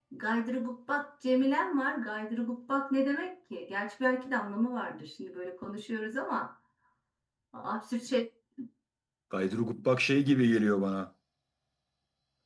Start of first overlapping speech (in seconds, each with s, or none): none